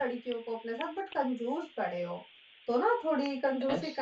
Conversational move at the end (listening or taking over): listening